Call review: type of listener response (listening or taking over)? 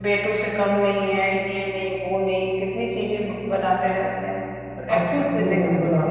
taking over